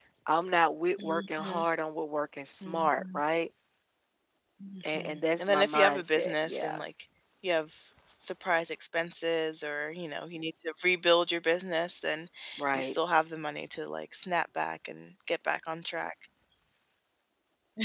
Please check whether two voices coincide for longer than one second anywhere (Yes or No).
Yes